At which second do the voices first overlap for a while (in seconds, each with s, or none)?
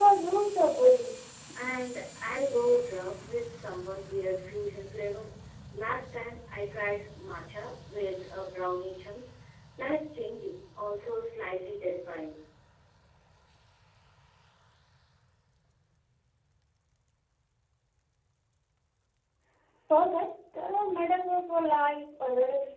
none